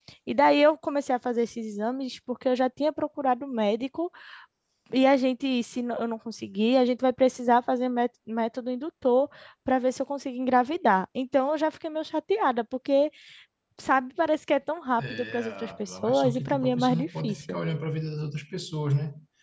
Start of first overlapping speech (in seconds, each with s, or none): 15.0 s